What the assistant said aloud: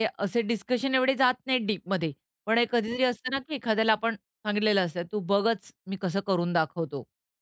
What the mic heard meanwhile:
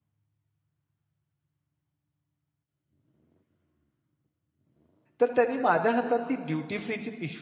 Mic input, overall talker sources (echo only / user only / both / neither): user only